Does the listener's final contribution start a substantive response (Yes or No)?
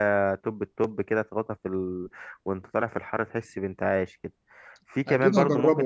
Yes